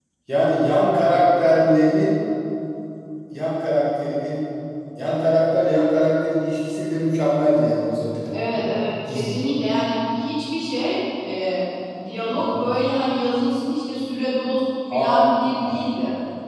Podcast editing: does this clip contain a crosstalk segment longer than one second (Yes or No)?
No